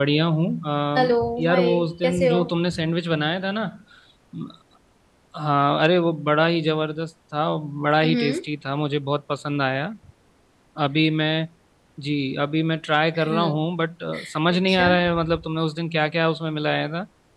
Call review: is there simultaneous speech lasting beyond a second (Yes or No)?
Yes